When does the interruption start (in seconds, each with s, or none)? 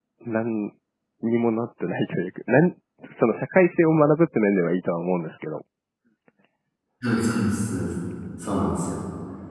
none